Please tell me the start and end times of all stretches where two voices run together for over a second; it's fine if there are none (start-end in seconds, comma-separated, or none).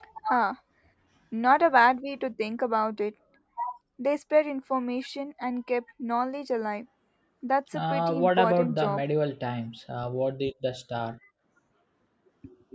7.8-9.0